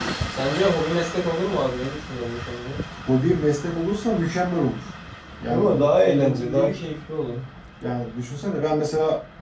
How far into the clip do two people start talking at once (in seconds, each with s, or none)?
5.5 s